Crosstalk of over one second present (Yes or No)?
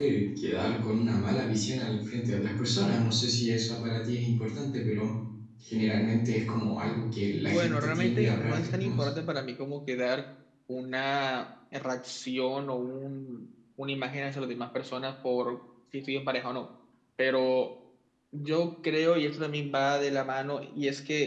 Yes